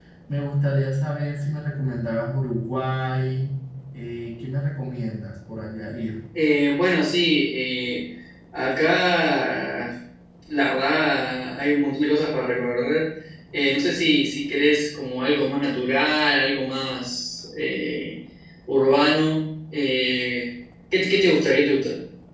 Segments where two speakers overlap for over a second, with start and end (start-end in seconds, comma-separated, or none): none